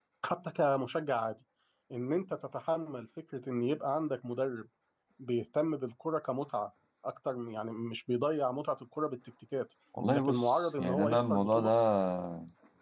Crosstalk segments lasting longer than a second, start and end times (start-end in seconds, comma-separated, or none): 10.1-11.7